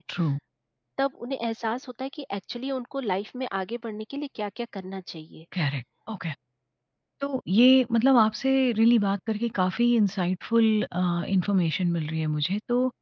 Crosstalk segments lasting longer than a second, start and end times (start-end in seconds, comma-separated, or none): none